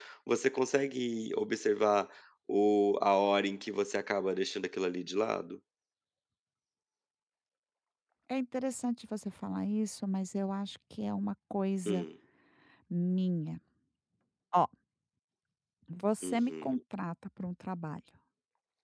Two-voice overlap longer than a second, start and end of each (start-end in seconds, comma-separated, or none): none